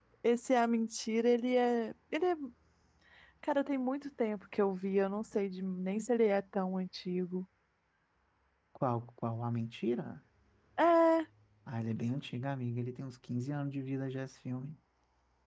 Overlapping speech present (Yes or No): No